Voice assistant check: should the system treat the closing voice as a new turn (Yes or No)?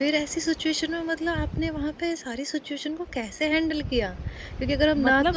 No